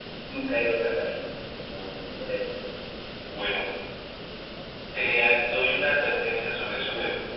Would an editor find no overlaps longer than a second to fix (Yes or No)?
Yes